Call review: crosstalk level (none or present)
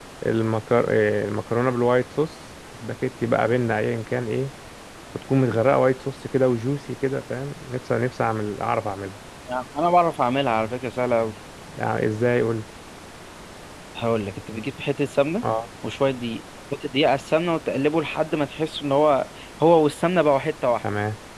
none